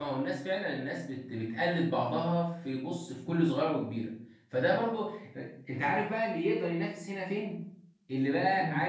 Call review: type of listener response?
listening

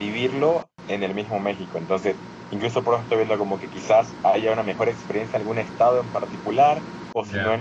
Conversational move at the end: listening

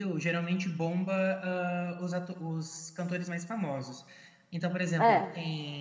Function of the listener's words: listening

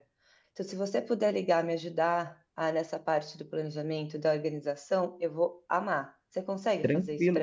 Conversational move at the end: taking over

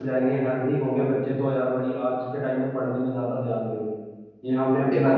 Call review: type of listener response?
listening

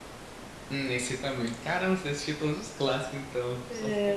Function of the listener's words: taking over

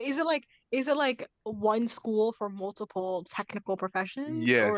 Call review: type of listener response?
taking over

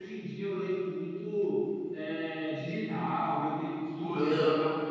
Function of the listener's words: listening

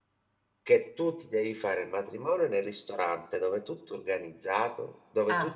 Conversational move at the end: listening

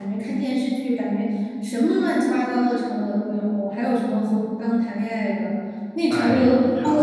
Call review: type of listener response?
listening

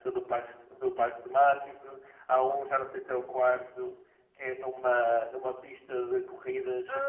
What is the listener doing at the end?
listening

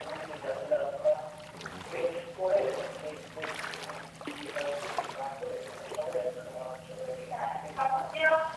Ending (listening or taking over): taking over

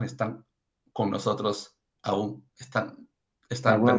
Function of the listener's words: taking over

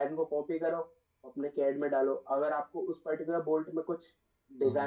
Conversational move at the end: listening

